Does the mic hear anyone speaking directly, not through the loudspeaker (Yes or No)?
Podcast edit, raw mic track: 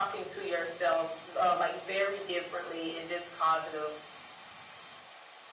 No